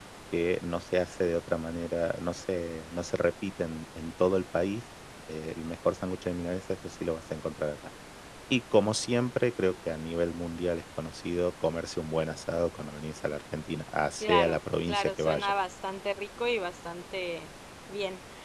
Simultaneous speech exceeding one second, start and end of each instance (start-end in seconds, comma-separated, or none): 14.2-15.5